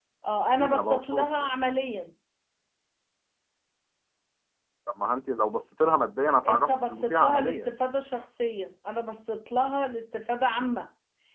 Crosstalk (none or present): present